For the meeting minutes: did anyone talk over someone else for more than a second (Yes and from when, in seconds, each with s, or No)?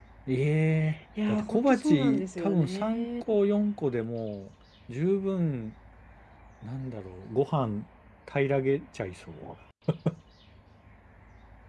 Yes, from 1.3 s